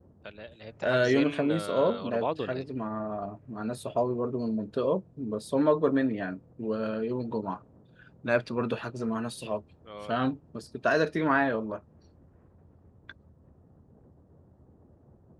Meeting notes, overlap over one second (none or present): present